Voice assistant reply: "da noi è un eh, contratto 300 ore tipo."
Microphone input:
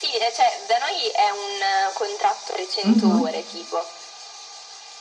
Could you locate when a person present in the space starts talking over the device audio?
2.9 s

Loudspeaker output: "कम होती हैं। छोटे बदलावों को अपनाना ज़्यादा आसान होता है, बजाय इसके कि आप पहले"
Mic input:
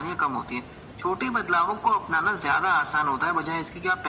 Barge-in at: none

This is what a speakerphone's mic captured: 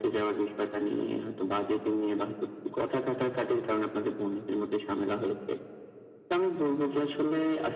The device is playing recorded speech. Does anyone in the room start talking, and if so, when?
none

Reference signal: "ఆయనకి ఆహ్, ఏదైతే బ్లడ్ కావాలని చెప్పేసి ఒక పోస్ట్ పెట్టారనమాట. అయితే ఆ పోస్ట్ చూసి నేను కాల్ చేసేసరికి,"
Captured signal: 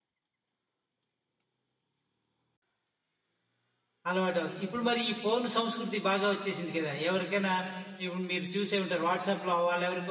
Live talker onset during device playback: 4.1 s

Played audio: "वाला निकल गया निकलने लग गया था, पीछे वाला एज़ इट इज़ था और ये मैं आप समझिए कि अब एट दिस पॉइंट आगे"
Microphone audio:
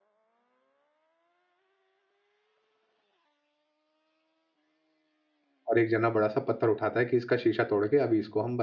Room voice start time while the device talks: 5.7 s

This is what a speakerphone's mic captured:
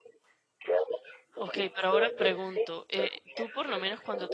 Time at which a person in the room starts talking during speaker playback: 1.4 s

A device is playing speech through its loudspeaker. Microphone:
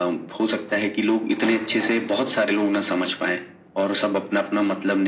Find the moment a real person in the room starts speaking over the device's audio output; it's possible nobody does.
none

